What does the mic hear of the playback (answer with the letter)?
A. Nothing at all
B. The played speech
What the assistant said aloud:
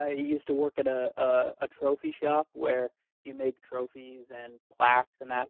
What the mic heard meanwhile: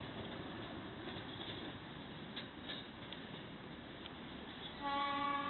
A